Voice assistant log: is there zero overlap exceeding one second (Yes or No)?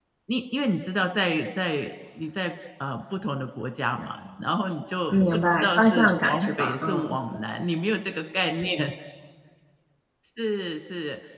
No